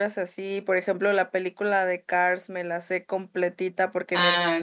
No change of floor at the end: Yes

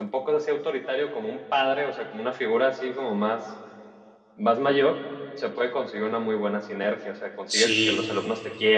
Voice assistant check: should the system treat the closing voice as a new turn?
No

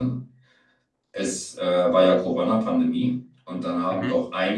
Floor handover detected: No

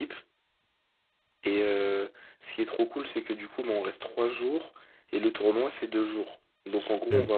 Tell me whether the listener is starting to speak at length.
No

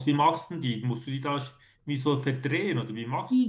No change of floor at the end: No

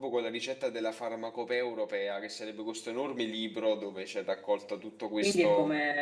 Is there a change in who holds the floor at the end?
Yes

